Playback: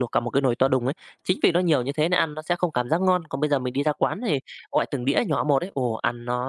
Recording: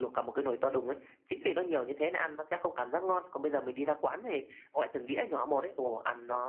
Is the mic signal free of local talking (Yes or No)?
Yes